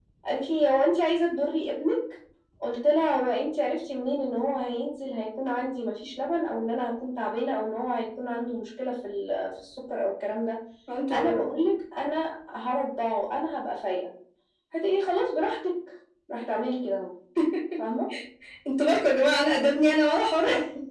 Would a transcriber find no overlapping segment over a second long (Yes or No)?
Yes